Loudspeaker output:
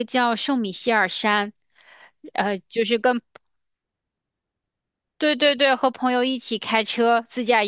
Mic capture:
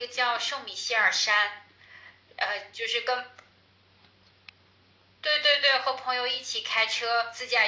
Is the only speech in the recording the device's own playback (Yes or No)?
Yes